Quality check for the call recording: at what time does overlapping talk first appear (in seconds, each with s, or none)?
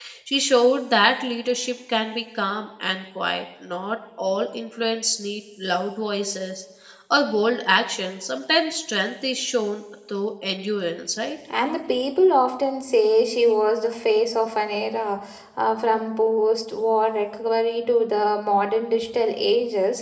none